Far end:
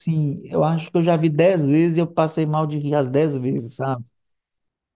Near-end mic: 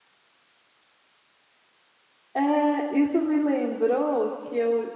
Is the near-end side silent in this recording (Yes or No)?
No